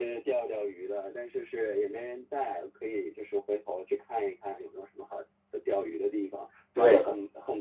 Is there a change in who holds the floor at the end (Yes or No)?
No